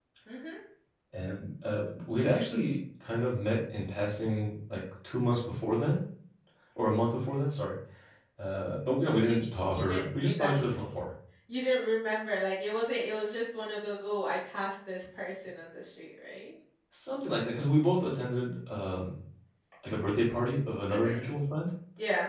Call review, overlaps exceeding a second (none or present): present